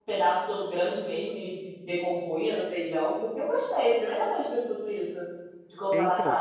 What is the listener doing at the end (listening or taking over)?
taking over